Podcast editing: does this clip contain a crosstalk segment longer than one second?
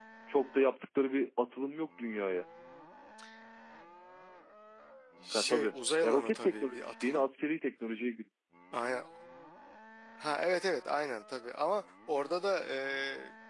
Yes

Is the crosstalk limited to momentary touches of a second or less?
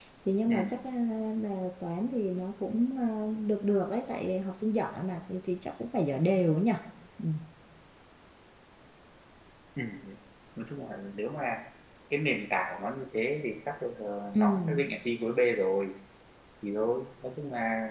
Yes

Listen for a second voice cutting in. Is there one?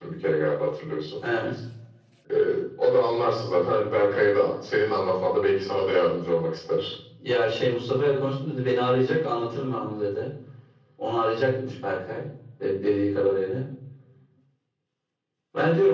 No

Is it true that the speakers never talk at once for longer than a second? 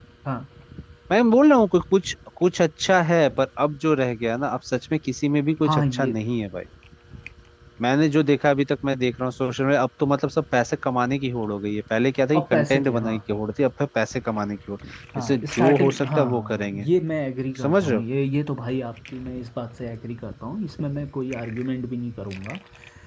No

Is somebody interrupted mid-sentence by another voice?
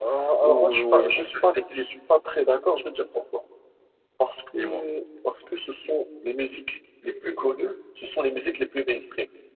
Yes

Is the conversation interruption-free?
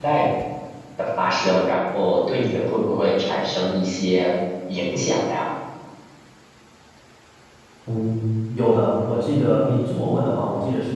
Yes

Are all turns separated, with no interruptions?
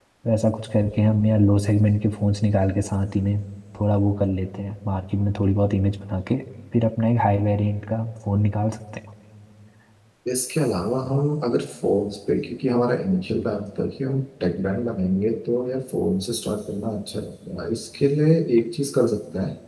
Yes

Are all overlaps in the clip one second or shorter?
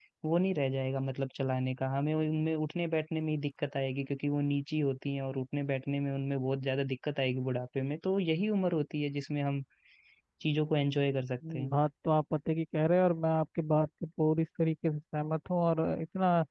Yes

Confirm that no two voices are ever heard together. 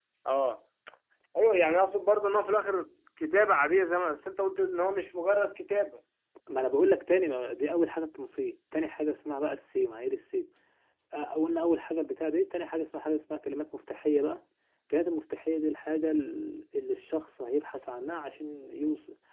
Yes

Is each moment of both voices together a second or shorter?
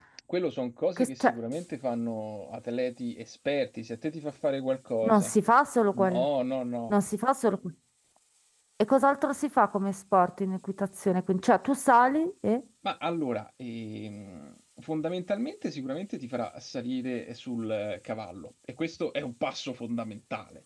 Yes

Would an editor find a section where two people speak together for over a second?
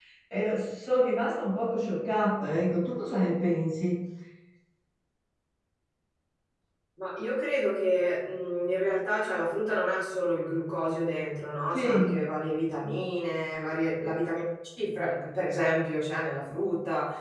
No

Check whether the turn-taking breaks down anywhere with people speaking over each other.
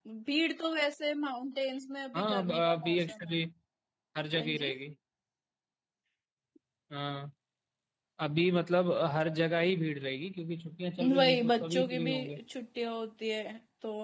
Yes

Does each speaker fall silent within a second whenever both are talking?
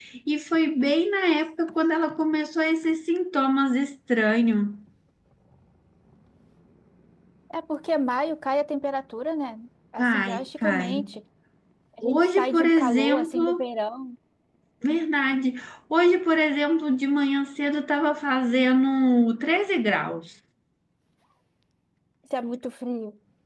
No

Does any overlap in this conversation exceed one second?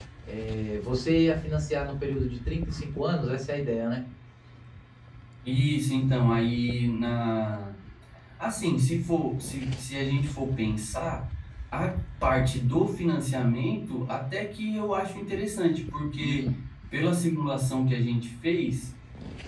No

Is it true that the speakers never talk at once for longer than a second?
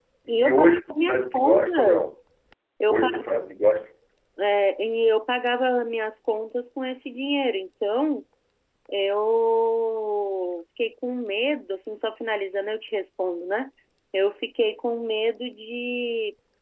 No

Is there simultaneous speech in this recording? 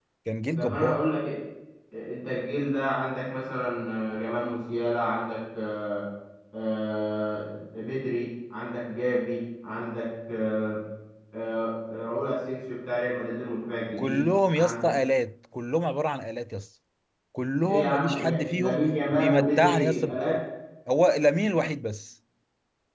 Yes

